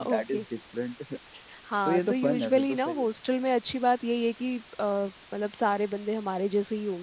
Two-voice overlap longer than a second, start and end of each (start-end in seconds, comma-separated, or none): 1.9-3.1